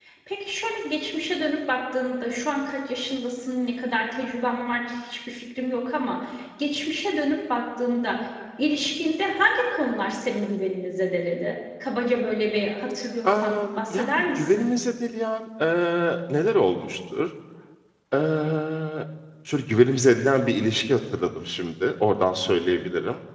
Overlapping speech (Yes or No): Yes